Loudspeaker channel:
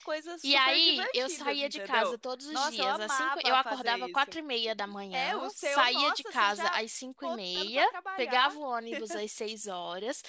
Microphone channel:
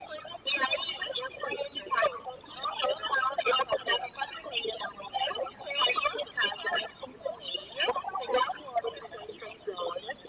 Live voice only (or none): none